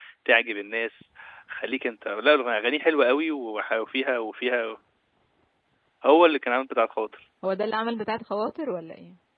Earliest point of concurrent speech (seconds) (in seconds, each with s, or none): none